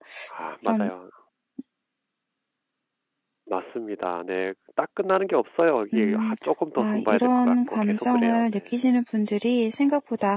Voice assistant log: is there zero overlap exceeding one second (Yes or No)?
No